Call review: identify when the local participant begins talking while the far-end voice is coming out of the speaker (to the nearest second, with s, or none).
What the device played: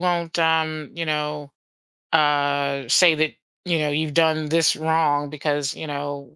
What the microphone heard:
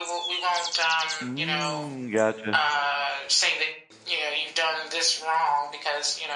1 s